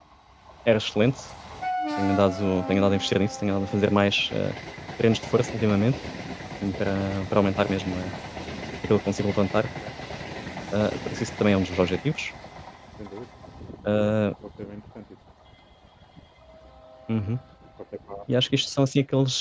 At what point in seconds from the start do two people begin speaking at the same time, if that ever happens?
none

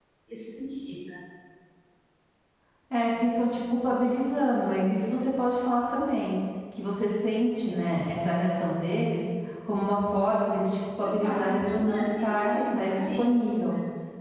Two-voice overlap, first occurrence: 11.0 s

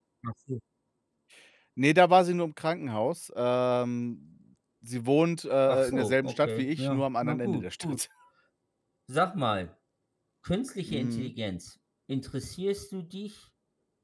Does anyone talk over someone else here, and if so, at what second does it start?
5.7 s

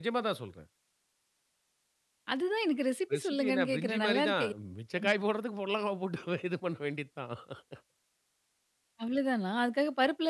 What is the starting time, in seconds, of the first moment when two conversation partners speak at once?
3.1 s

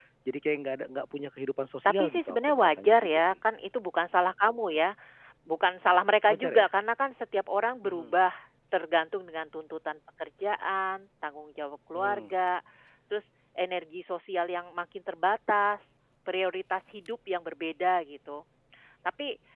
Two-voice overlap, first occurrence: 1.8 s

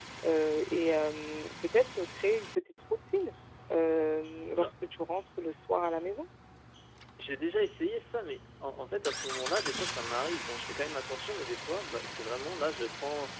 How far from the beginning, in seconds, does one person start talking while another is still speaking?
none

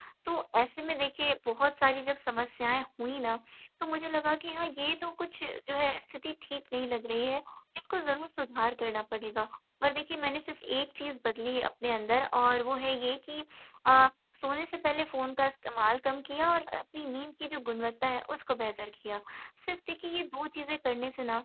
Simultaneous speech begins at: none

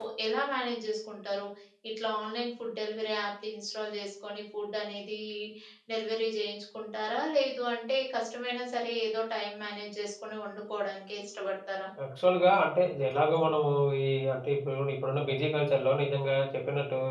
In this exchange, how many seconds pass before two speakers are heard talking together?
none

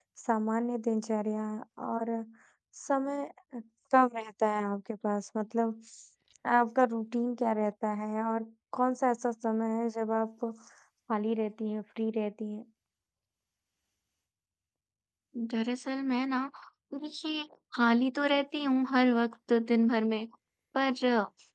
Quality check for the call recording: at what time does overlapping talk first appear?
none

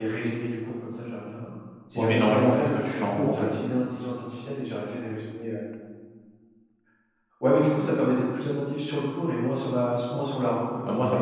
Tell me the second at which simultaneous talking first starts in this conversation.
2.0 s

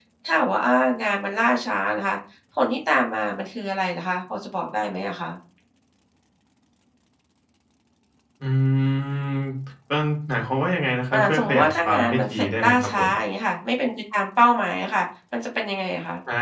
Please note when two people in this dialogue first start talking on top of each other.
11.1 s

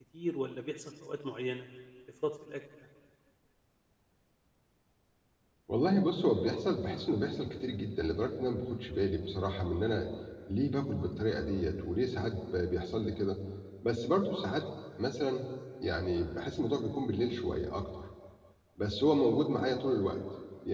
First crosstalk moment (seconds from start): none

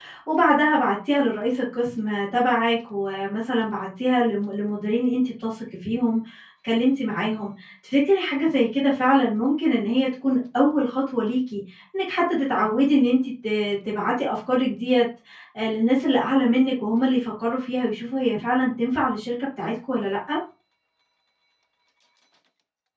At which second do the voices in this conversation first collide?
none

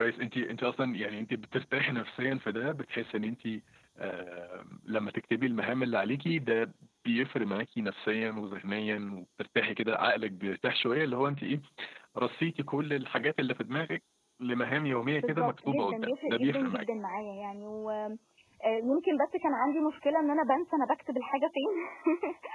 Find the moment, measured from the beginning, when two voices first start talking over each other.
15.2 s

